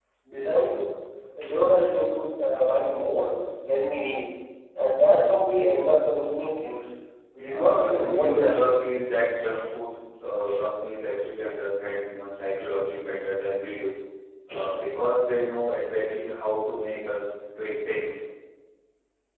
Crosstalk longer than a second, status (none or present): present